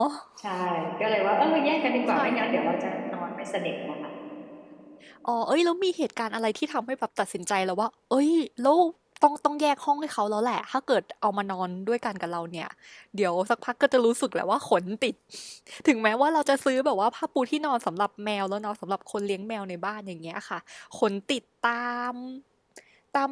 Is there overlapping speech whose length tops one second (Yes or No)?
No